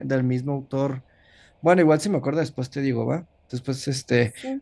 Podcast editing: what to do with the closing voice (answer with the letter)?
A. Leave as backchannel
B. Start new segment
A